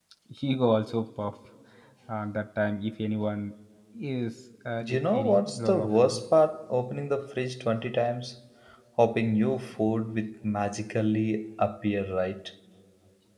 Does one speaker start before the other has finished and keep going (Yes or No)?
Yes